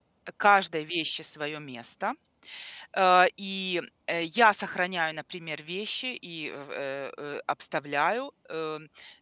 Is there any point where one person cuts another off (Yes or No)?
No